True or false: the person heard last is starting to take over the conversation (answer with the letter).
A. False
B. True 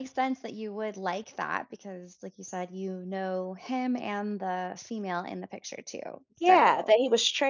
B